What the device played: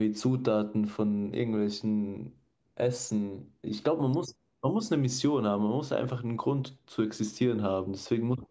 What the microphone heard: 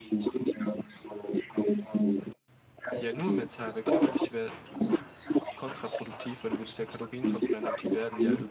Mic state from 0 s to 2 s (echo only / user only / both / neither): echo only